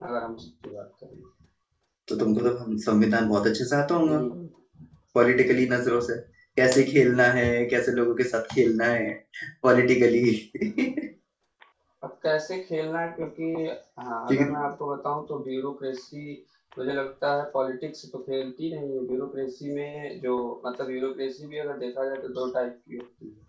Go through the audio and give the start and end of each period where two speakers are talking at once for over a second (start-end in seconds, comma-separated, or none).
none